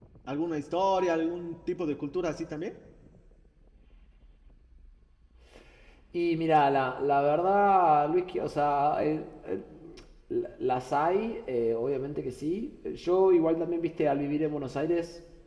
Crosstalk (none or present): none